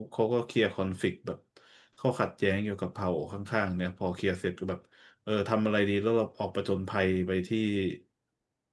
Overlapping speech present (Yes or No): No